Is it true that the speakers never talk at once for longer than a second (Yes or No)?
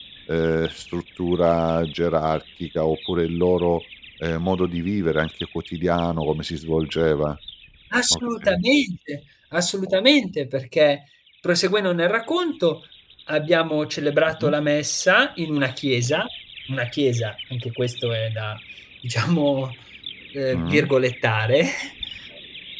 Yes